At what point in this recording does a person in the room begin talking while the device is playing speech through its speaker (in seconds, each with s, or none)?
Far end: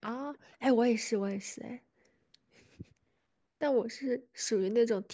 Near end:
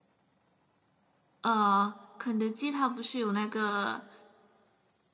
1.4 s